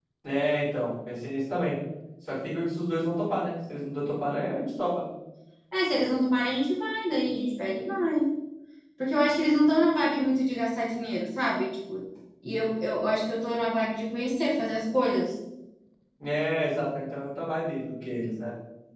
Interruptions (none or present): none